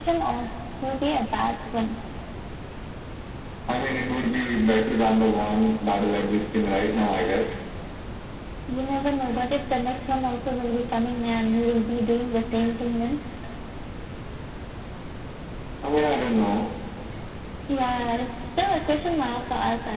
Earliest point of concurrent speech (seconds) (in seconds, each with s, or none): none